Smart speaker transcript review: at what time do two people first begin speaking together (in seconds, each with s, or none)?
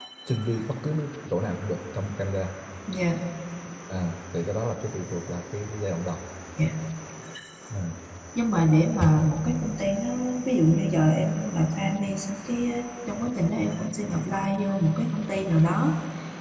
none